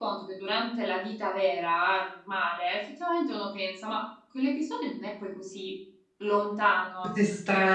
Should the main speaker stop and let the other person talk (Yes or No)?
Yes